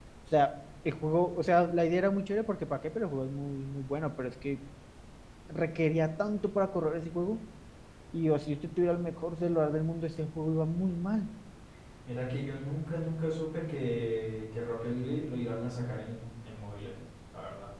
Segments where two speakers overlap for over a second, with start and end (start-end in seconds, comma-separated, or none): none